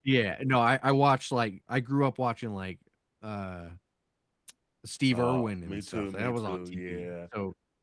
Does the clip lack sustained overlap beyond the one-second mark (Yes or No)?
No